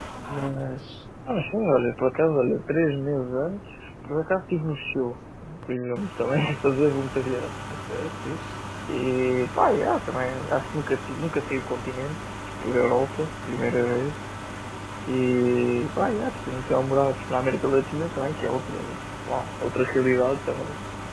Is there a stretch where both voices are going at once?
No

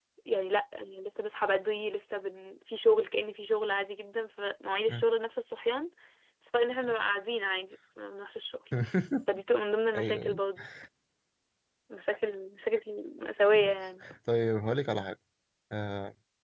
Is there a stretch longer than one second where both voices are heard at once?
No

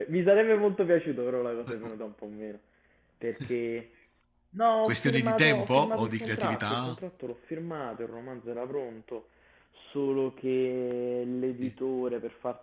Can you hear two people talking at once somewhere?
Yes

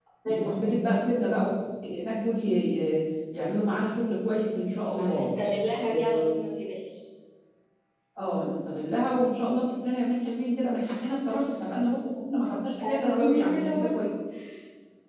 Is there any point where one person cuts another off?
Yes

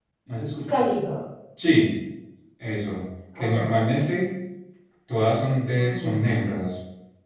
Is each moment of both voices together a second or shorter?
Yes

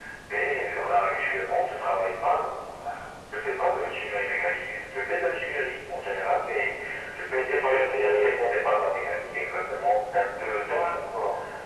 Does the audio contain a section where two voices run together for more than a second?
Yes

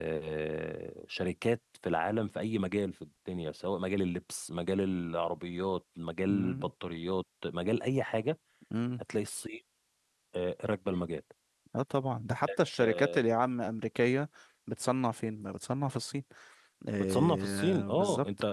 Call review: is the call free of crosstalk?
No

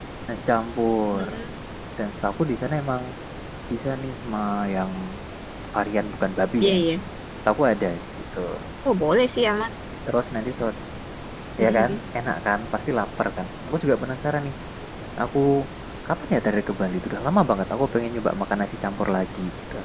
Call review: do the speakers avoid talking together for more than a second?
Yes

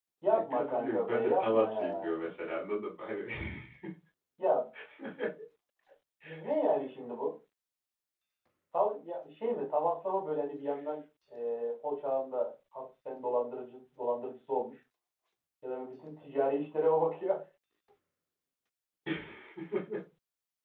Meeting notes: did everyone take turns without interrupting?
No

